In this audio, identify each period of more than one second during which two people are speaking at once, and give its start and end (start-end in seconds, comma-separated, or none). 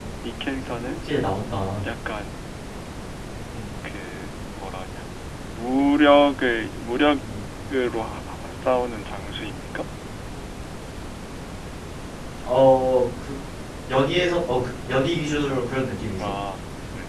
none